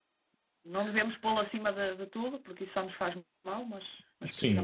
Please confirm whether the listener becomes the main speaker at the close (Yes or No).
Yes